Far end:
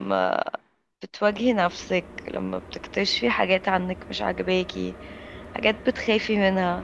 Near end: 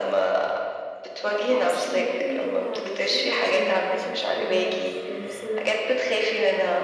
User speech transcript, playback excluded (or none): أوقات بحس إن إحنا كده عايشين عشان نكتشف ونعرف نفسنا